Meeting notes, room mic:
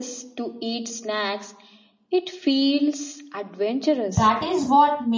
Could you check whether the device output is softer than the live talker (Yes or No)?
Yes